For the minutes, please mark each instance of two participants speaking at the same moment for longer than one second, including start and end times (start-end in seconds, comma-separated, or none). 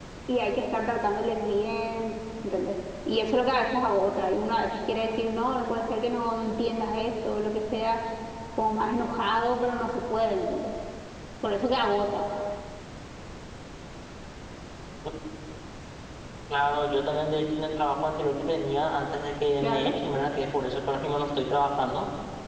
none